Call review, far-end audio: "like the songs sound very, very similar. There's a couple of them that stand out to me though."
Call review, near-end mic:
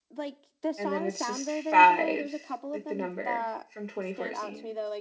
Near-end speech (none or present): present